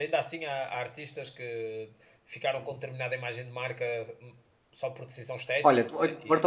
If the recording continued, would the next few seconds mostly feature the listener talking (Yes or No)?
Yes